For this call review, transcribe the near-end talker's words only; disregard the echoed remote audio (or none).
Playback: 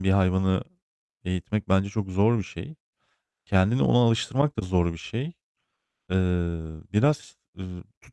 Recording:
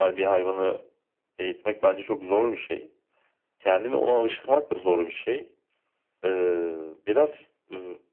none